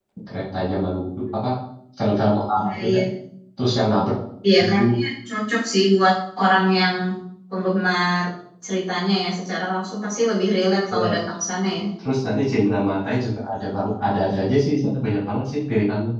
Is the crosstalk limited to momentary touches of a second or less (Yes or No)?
Yes